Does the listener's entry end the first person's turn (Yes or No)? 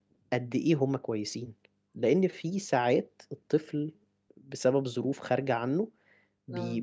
No